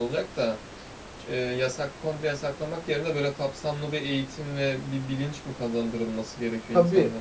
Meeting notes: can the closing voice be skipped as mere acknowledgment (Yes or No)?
No